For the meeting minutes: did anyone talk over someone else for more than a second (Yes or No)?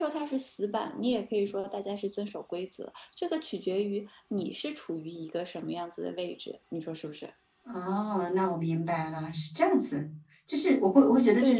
No